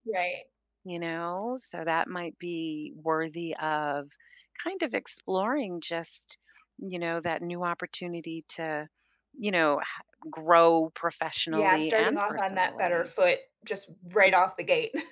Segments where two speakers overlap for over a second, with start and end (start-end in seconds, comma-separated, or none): 11.5-13.1